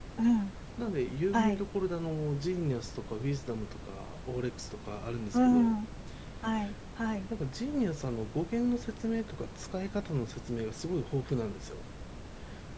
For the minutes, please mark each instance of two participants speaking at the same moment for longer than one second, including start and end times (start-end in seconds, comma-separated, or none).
none